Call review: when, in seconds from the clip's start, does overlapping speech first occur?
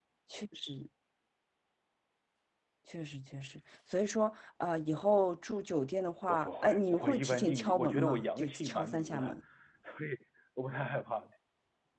6.3 s

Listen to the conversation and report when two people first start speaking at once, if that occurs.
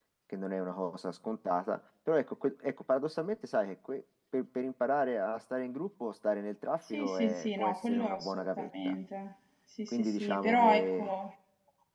6.9 s

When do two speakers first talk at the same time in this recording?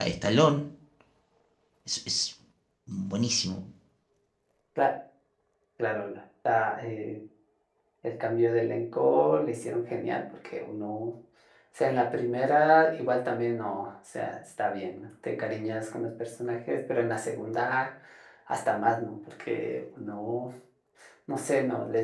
none

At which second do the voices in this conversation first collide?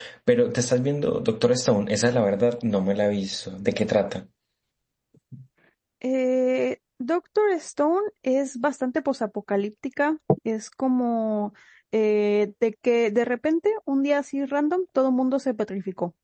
none

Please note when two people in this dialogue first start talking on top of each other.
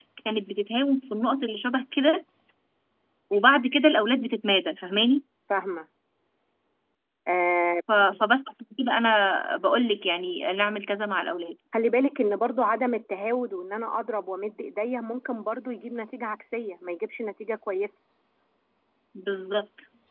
none

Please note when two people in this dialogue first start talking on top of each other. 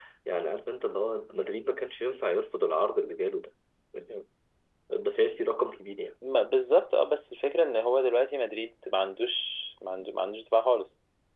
none

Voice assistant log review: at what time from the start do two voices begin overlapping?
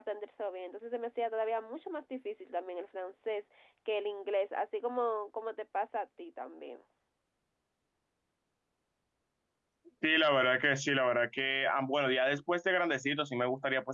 none

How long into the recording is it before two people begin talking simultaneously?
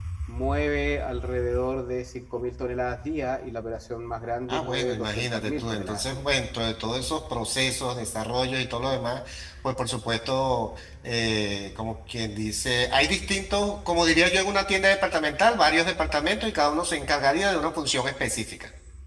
4.5 s

